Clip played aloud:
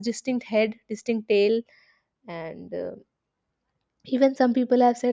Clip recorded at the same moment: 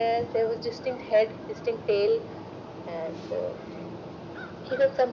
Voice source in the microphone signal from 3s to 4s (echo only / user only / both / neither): echo only